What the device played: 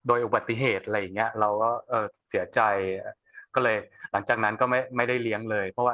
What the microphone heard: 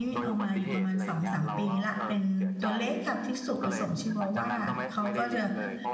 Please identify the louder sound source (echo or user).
user